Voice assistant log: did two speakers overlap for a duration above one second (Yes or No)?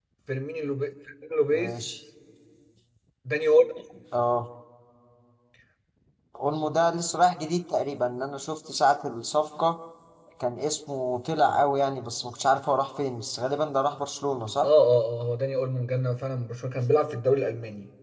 No